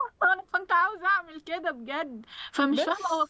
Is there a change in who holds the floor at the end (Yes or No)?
No